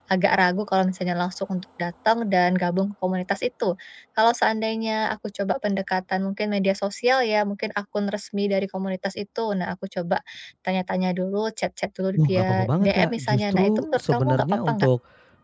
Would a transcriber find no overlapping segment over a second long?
No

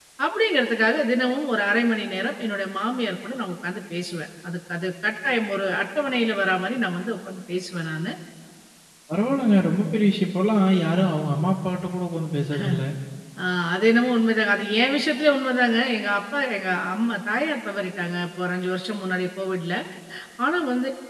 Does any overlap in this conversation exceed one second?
No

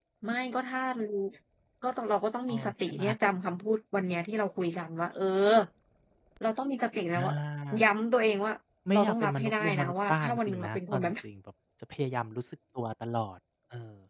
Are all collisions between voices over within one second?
No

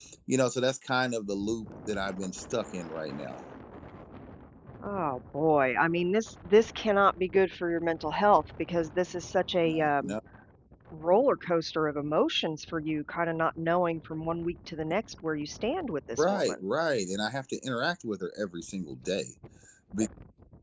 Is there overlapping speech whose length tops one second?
No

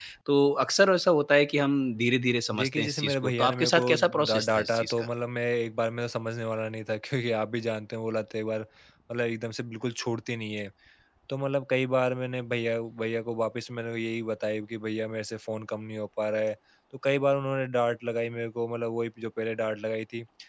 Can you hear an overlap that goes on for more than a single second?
Yes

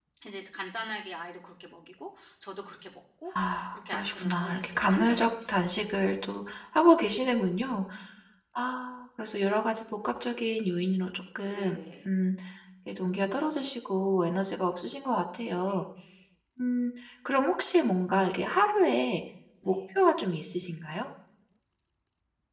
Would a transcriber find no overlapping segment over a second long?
No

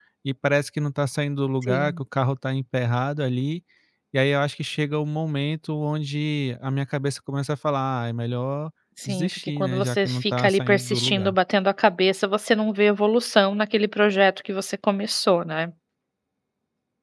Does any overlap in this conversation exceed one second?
Yes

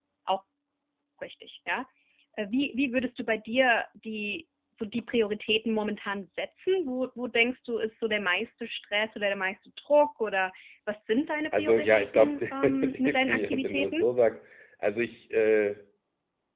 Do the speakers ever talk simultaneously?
Yes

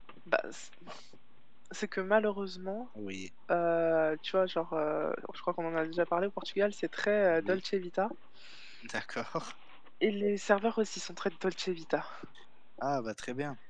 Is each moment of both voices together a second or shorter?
Yes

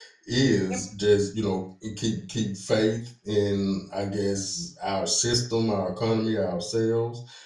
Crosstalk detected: No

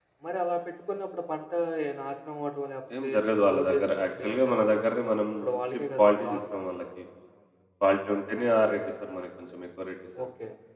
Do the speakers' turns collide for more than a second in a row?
Yes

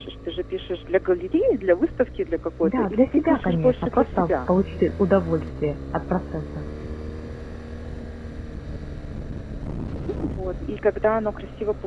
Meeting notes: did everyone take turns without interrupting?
No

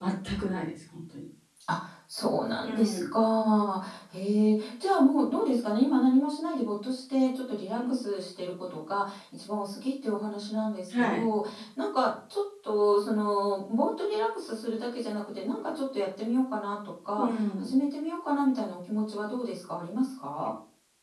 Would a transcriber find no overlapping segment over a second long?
Yes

